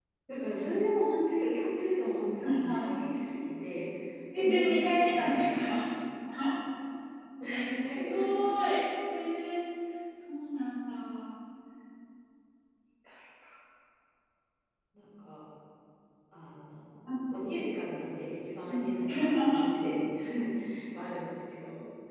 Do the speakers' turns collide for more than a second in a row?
Yes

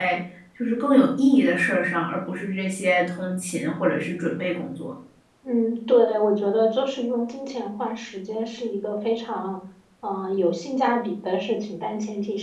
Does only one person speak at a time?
Yes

